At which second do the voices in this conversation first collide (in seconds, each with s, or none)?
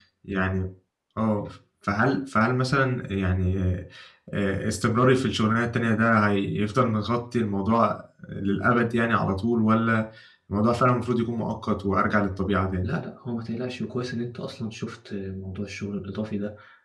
none